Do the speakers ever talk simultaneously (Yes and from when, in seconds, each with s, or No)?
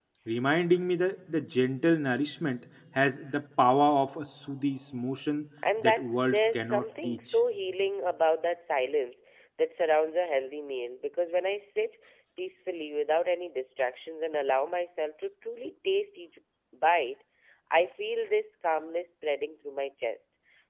Yes, from 5.6 s